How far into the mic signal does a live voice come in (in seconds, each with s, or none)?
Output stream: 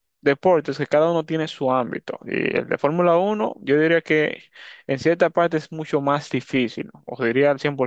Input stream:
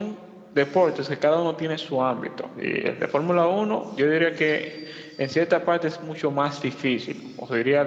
none